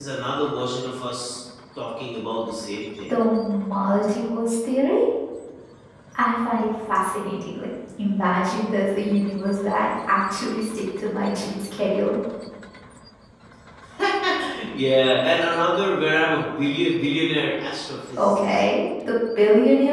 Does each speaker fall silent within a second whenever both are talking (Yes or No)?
Yes